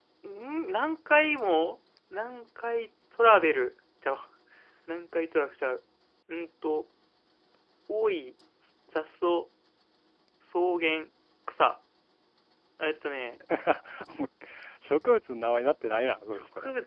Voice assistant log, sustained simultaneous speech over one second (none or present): none